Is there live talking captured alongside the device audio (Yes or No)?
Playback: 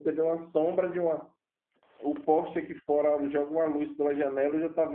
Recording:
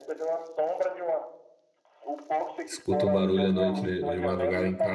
Yes